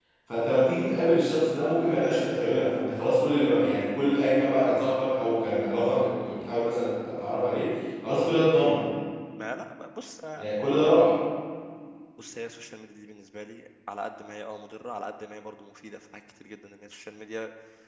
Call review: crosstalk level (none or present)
none